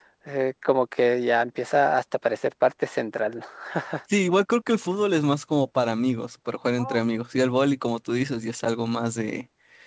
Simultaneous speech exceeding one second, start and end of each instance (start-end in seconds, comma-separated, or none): none